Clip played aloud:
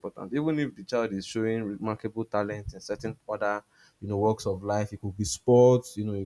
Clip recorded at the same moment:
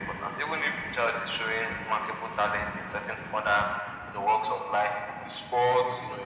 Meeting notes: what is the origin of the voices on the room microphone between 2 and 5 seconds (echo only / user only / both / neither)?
echo only